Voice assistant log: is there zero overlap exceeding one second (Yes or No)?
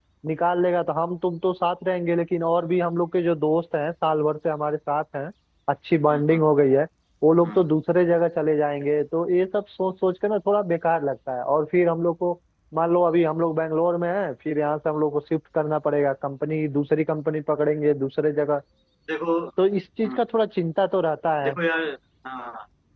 Yes